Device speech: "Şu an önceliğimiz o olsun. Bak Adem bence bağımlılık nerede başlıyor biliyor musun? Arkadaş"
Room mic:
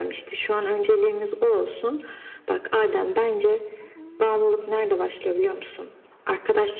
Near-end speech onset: none

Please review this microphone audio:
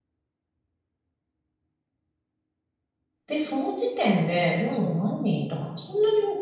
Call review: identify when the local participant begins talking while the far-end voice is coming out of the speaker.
3 s

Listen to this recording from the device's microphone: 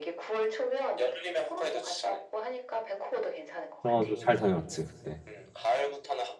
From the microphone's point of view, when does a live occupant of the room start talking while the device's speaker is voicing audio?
4 s

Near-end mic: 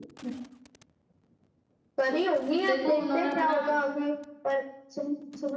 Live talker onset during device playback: 2 s

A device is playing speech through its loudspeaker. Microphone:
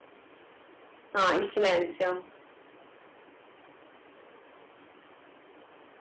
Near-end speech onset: 1 s

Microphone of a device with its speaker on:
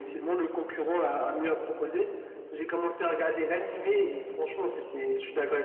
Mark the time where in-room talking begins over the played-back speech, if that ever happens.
none

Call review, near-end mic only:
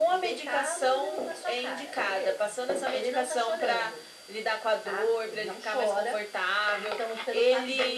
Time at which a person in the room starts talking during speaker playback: none

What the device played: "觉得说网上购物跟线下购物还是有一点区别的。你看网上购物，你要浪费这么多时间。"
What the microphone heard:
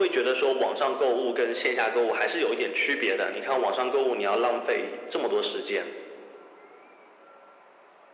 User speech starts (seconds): none

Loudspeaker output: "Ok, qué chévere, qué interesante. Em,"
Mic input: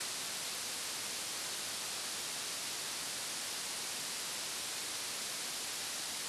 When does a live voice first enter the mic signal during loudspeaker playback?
none

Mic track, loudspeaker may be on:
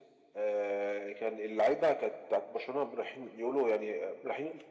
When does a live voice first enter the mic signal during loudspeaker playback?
none

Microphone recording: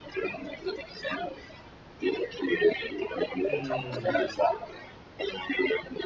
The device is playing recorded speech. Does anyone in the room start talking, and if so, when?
3 s

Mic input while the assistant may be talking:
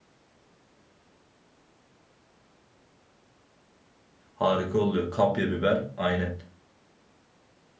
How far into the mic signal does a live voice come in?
4 s

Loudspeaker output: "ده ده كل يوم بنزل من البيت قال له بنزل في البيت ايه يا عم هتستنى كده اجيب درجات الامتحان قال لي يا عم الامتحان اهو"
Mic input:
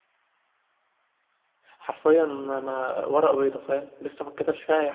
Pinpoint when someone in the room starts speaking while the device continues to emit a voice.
2 s

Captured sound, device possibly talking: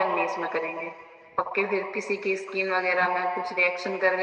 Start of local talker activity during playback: none

